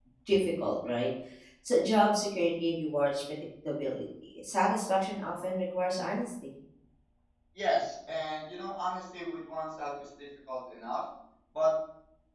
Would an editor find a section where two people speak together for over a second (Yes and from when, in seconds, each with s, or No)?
No